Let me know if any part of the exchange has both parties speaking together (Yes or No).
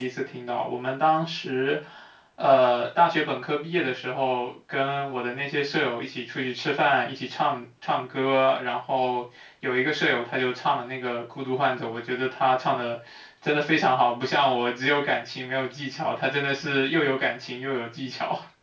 No